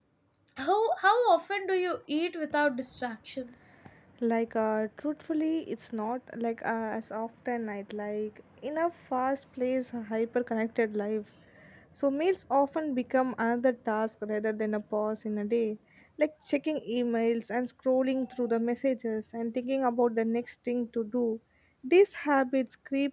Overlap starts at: none

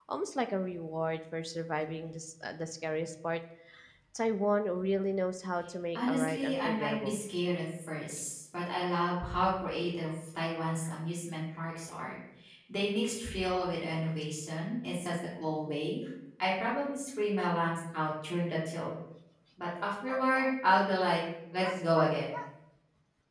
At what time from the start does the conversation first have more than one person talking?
6.0 s

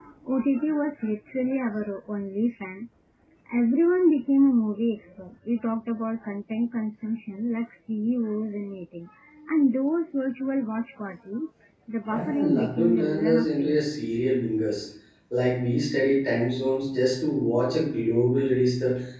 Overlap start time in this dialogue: 12.1 s

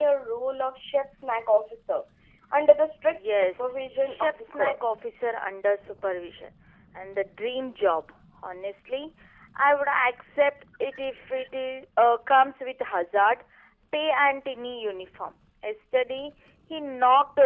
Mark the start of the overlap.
3.1 s

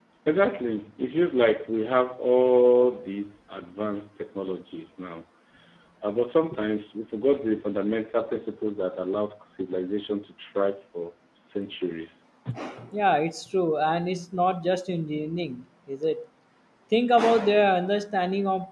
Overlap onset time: none

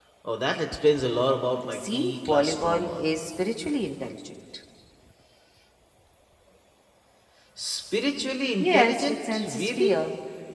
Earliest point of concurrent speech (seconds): 1.7 s

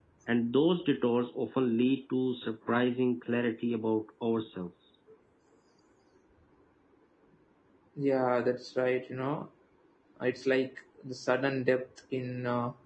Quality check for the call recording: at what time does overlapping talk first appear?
none

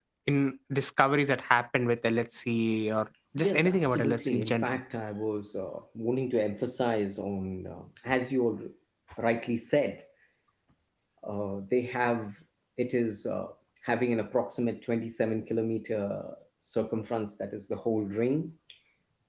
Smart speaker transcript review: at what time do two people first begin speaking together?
3.4 s

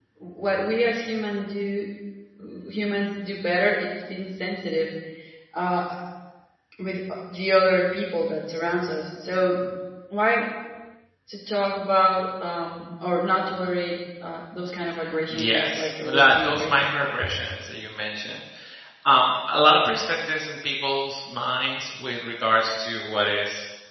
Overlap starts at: 15.3 s

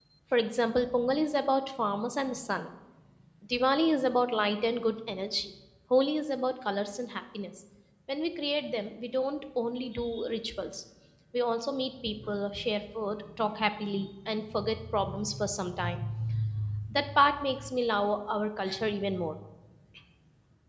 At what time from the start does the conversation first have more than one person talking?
none

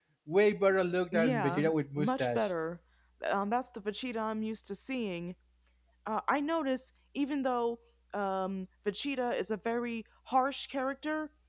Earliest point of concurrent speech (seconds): 1.1 s

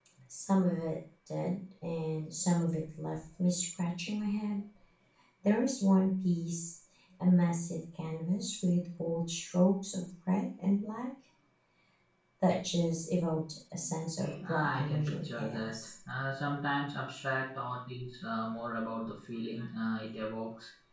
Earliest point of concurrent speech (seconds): 14.4 s

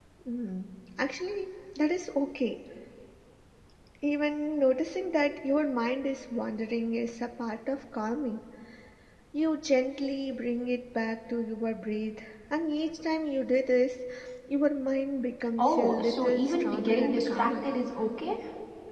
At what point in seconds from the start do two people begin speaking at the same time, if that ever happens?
15.6 s

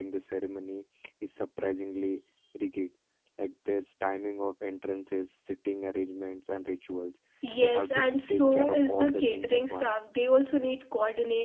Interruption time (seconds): 7.6 s

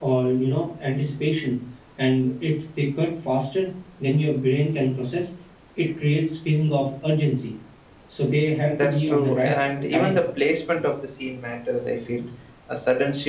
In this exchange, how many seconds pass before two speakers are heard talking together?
8.6 s

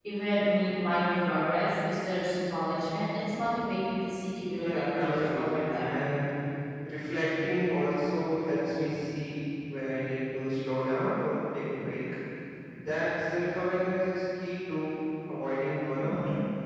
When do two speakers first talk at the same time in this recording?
4.6 s

